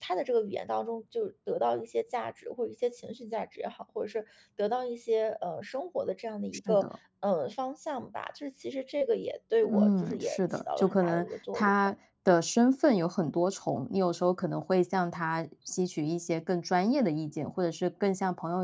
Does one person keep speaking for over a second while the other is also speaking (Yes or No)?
Yes